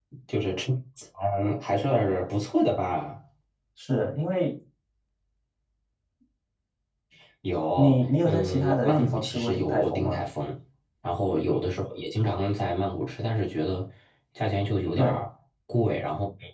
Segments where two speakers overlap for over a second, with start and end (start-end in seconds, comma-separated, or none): 7.8-10.2